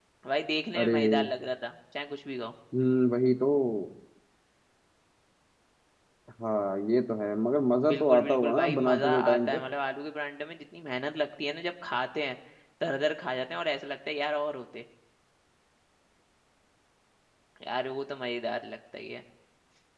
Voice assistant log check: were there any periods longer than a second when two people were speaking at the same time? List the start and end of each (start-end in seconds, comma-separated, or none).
7.9-9.6